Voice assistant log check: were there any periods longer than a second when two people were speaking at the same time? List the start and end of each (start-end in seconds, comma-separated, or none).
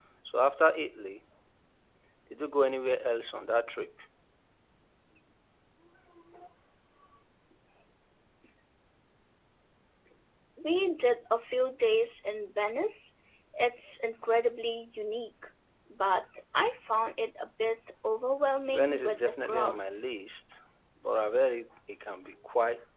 18.7-20.1